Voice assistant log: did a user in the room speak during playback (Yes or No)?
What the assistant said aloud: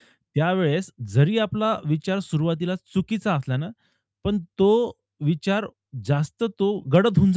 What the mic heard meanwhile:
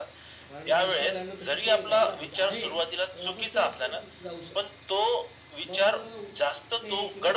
Yes